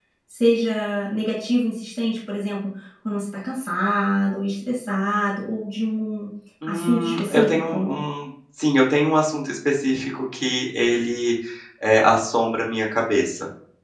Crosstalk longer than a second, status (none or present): present